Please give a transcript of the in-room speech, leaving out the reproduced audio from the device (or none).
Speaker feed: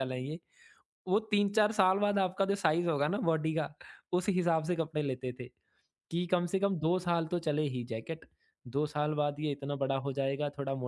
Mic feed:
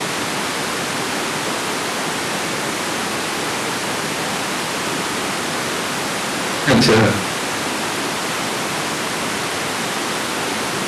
अच्छा।